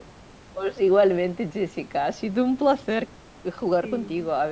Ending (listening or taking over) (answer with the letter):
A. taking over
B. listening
B